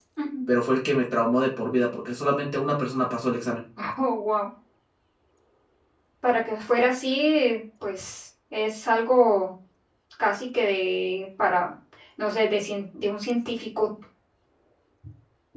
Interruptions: none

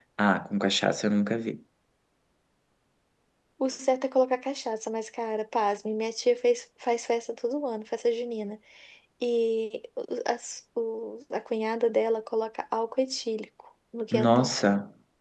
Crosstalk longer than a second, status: none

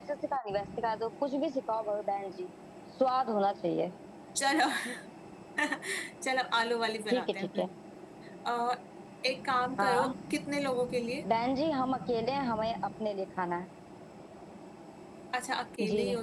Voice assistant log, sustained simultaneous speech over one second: none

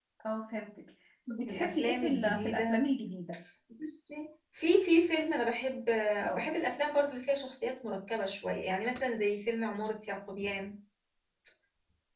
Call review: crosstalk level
present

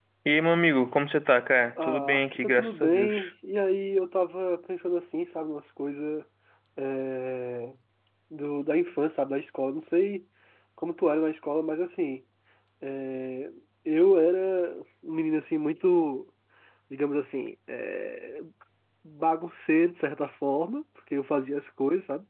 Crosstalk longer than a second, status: present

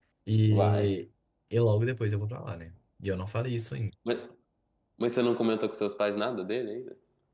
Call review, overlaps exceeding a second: none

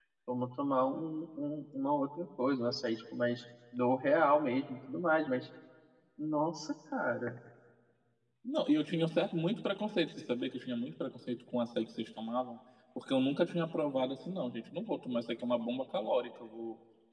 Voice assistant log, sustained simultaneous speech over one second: none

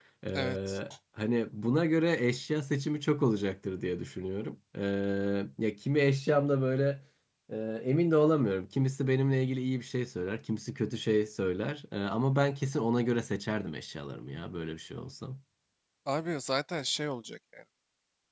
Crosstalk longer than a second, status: none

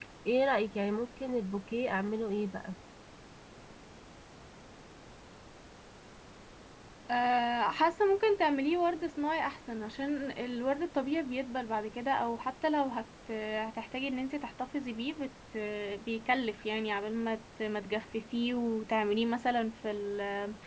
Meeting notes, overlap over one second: none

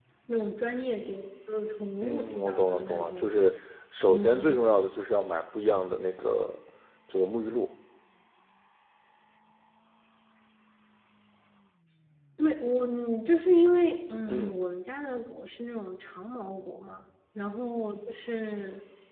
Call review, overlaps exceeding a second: present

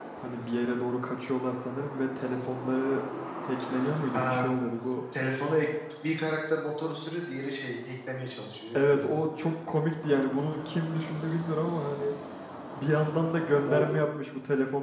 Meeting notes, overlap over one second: none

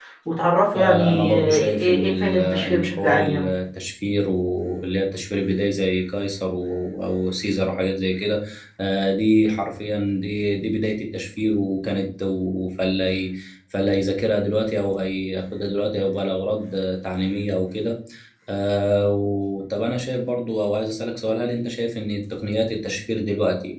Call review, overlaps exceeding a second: present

